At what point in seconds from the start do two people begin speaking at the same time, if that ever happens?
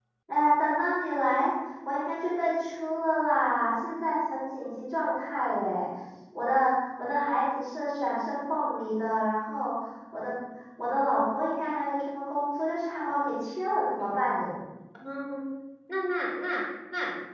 none

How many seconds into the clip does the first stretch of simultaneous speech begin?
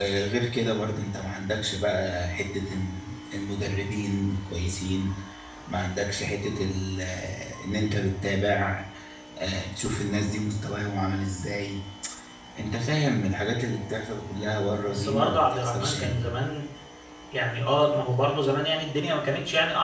14.8 s

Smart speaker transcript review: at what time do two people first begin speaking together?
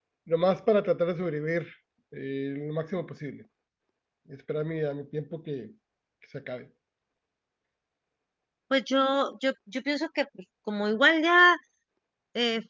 none

